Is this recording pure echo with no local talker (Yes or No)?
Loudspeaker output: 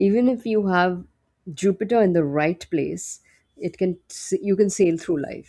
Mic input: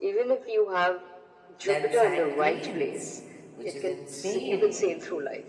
No